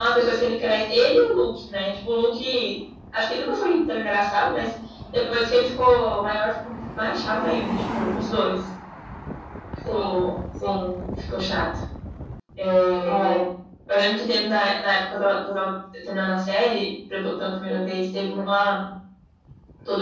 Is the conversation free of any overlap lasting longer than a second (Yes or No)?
Yes